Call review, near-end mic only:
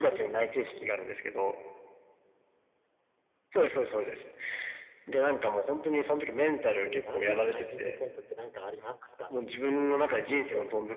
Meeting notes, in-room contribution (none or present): present